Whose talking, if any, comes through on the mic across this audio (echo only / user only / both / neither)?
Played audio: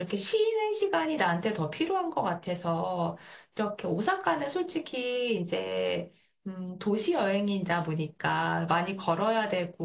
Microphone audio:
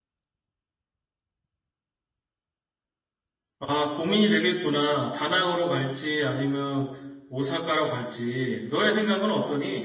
user only